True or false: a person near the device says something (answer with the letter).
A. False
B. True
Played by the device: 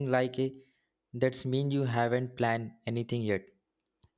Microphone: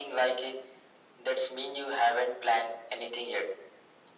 A